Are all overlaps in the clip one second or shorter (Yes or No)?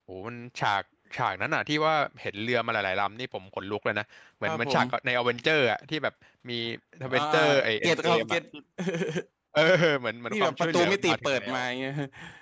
No